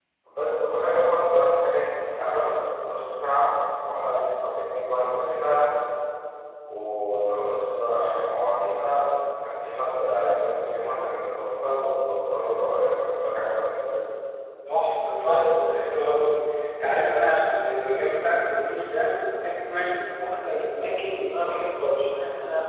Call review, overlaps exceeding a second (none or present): none